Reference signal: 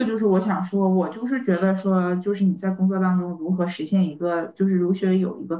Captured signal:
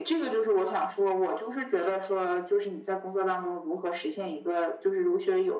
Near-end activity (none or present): none